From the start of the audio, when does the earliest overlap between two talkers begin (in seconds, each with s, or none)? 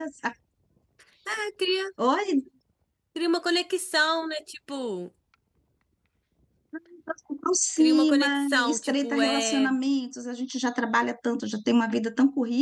7.8 s